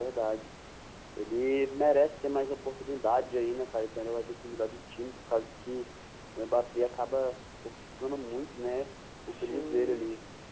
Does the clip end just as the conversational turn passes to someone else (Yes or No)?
Yes